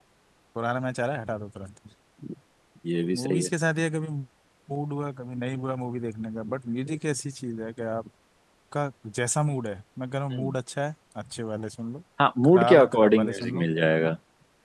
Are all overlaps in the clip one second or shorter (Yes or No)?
No